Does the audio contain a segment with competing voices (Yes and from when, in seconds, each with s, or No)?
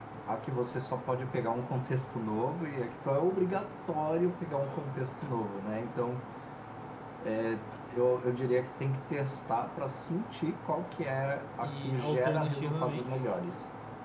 Yes, from 11.6 s